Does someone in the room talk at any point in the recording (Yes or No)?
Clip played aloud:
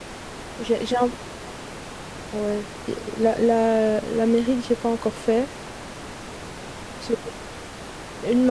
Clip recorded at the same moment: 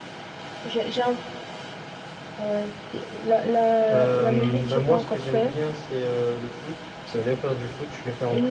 Yes